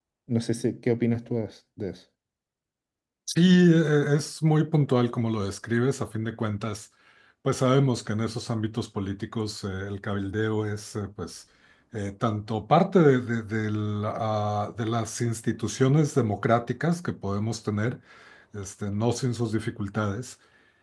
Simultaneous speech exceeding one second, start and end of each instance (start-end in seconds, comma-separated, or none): none